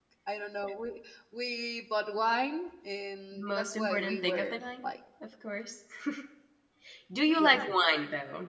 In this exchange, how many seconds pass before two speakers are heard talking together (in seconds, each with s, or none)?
3.4 s